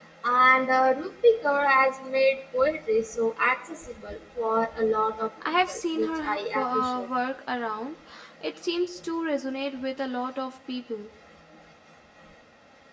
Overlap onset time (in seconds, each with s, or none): 5.4 s